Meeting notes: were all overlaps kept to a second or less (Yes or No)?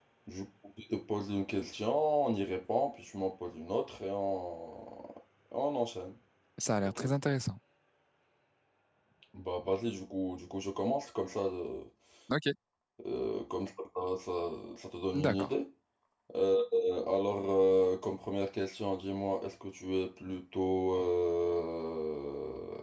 Yes